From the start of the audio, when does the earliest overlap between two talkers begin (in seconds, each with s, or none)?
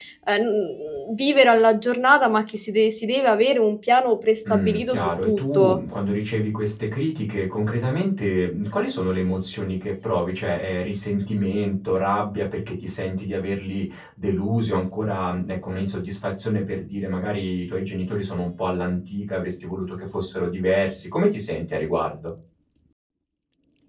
4.4 s